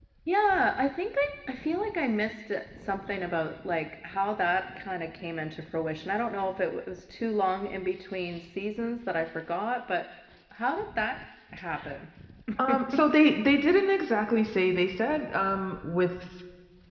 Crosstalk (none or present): none